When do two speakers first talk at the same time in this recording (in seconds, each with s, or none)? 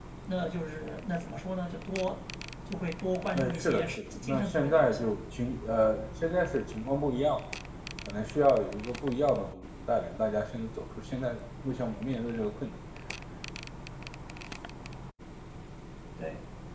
3.3 s